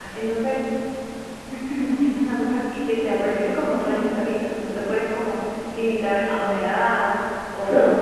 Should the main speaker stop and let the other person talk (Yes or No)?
No